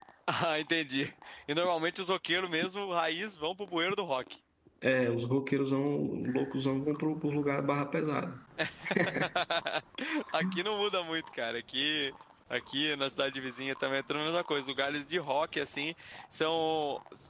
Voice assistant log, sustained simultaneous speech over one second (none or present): none